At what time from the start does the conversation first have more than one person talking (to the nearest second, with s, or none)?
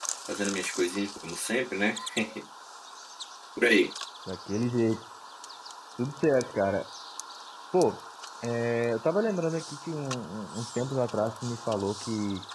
none